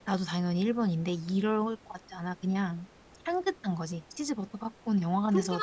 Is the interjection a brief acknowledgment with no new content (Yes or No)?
No